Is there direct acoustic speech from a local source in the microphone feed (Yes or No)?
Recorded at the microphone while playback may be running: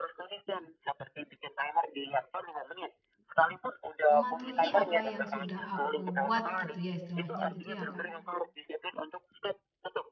Yes